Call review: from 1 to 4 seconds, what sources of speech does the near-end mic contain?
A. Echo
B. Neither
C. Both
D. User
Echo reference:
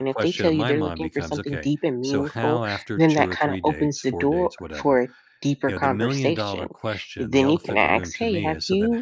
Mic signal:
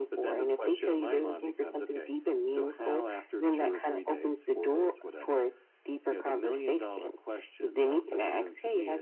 A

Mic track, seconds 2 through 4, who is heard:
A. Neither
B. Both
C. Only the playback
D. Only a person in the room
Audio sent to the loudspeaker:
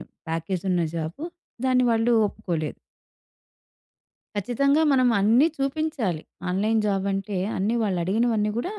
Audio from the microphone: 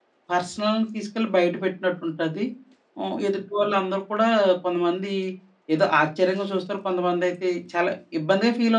D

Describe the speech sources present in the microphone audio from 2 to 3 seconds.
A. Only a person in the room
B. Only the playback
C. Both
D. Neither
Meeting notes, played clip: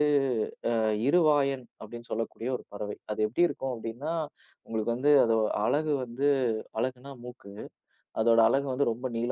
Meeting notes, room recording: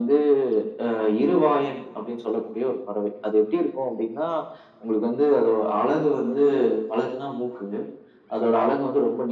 B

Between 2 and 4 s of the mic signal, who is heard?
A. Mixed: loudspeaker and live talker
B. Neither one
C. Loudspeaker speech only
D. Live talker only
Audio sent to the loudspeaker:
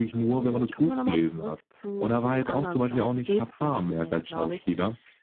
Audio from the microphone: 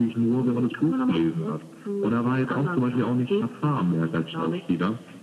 C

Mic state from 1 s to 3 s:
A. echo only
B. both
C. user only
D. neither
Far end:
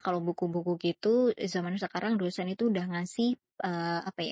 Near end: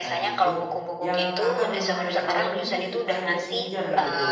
B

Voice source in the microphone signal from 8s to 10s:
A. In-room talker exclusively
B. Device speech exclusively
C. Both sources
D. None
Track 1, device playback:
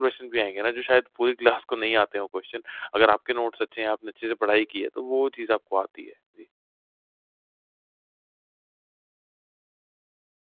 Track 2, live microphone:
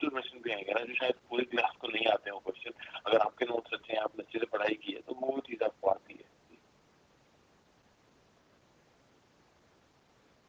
D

